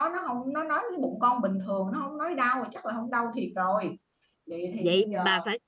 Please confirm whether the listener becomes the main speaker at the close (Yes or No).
Yes